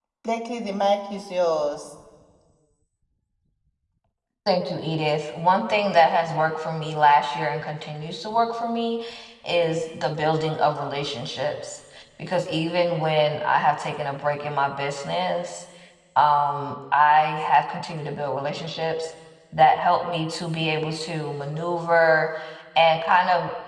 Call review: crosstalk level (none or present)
none